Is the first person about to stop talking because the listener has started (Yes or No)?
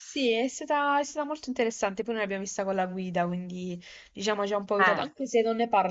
No